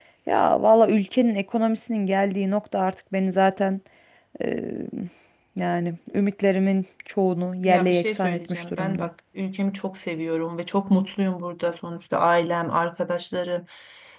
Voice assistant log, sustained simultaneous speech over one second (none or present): present